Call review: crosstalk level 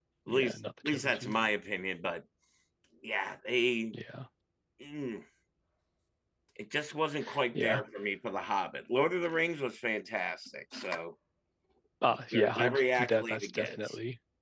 present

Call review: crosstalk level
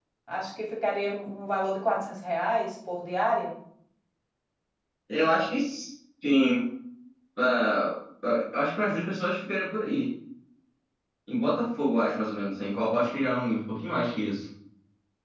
none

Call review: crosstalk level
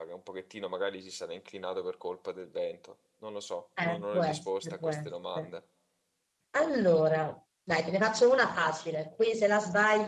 present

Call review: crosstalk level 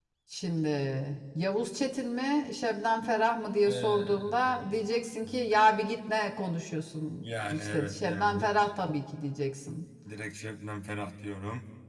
present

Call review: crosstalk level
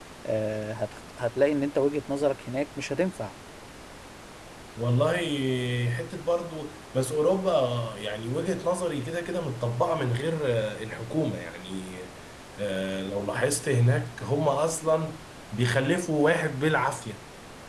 none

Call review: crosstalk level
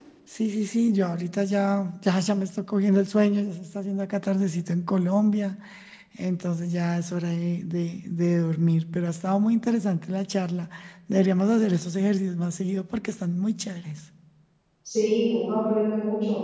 none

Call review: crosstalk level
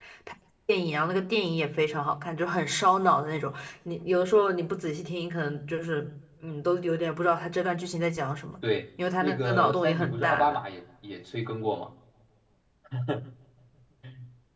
present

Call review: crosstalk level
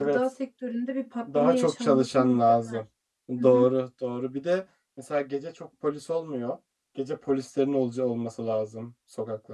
present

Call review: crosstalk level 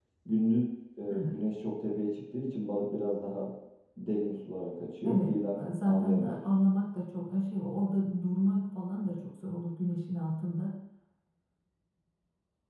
present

